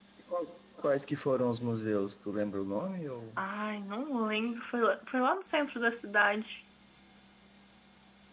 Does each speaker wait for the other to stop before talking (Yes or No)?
Yes